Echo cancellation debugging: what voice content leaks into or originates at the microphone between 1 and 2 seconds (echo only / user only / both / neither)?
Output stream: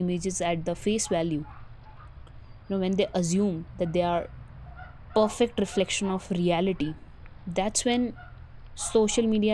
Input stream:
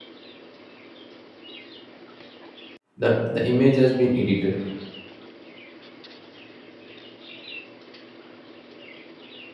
neither